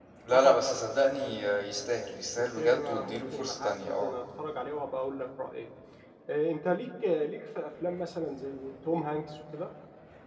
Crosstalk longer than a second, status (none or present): present